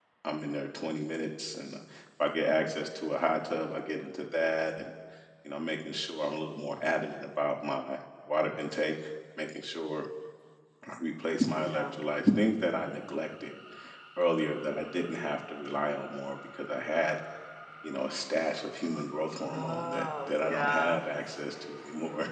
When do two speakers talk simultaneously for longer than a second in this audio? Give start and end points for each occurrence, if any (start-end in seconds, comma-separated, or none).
19.5-21.0